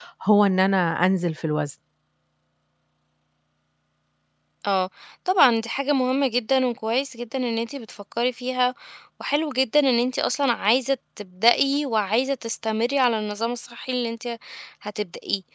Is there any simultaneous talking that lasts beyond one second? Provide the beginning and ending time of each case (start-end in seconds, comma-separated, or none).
none